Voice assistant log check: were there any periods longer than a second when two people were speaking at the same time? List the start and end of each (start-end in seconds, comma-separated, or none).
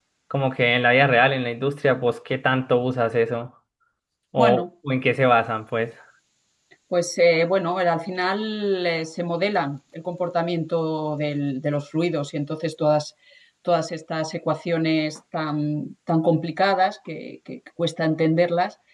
none